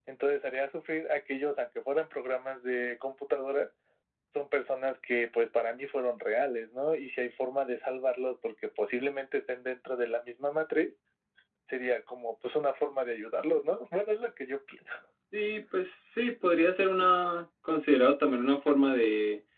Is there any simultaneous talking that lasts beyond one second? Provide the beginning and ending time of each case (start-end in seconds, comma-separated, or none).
none